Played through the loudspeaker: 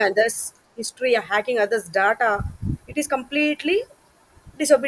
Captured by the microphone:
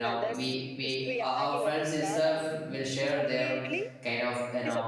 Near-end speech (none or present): present